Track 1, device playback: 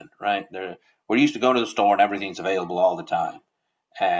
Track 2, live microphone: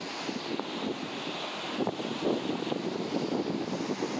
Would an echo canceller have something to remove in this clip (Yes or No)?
No